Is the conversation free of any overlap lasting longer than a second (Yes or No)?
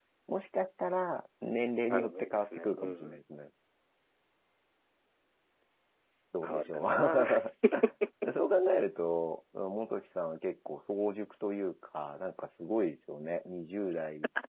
No